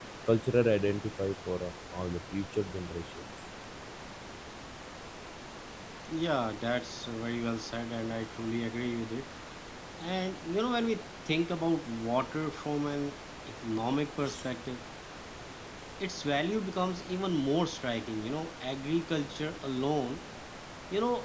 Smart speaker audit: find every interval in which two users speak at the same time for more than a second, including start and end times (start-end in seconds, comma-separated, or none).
none